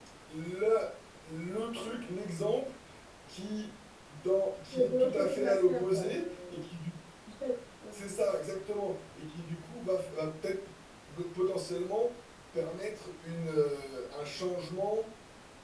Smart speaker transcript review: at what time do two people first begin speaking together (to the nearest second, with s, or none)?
5 s